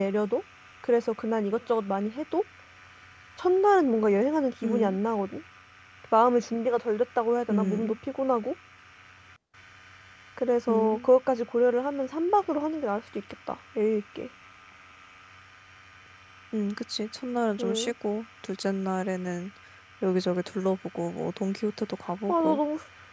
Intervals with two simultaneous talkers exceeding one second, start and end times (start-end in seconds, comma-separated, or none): none